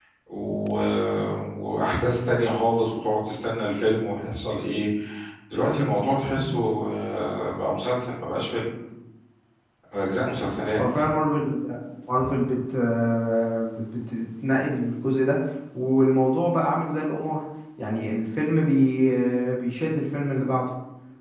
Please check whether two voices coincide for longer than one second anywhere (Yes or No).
No